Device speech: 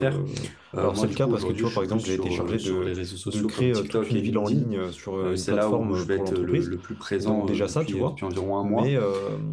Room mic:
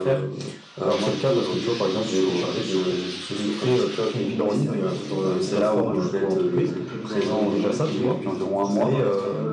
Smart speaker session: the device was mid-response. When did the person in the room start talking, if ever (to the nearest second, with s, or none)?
4 s